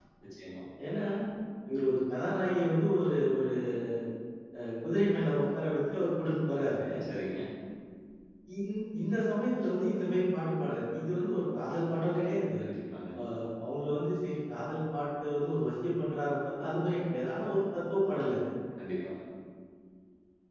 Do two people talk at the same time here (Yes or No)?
No